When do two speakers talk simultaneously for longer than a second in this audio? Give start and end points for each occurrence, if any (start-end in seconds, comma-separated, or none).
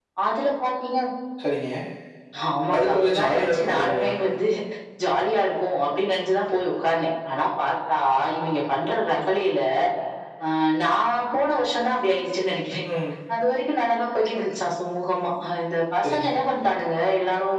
2.8-4.1